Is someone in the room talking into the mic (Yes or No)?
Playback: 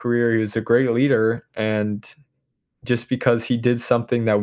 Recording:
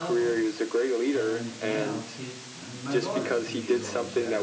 Yes